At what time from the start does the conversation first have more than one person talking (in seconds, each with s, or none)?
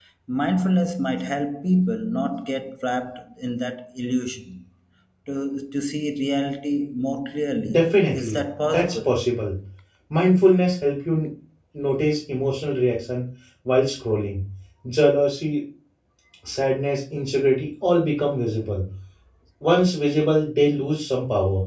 7.6 s